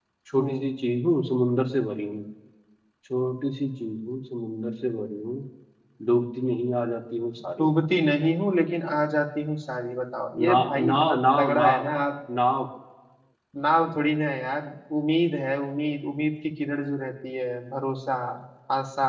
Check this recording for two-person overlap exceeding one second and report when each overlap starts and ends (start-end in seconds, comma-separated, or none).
10.4-11.8